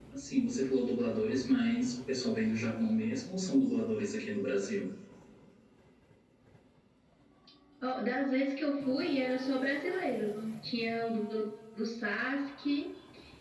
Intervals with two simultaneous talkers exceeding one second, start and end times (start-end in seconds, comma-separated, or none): none